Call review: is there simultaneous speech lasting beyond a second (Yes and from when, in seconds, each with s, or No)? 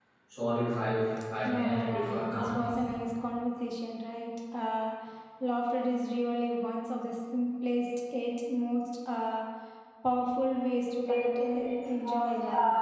Yes, from 1.4 s